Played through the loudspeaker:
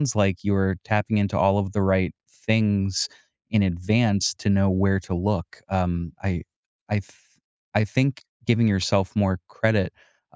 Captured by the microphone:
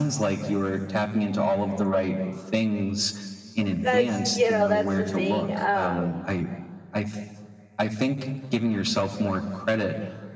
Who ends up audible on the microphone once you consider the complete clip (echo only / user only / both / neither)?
both